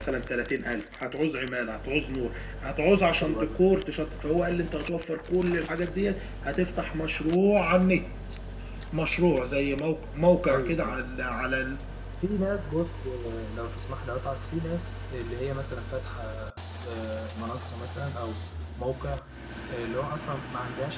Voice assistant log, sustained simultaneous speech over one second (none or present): none